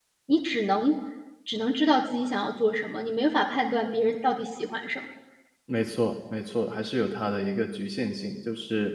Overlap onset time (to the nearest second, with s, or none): none